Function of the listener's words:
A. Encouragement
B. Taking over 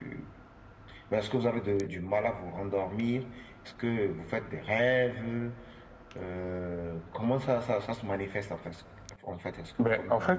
B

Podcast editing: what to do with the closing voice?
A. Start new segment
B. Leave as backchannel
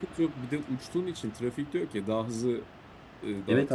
A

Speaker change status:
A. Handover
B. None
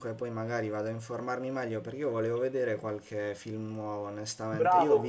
B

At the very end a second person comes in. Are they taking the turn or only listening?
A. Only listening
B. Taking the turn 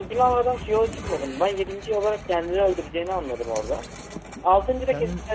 A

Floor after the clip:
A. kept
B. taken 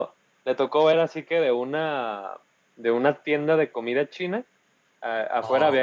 A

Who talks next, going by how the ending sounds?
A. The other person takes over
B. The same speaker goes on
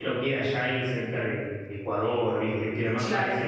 B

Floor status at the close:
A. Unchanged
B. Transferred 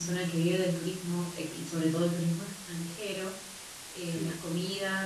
A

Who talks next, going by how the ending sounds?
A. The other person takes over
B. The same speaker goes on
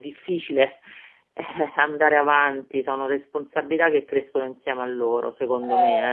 A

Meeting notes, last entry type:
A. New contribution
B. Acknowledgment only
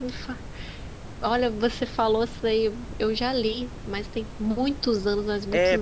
A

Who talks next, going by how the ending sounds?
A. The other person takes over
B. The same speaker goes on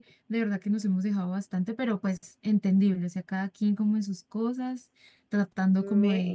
B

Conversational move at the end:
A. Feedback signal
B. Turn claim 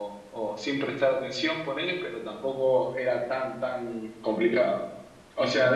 A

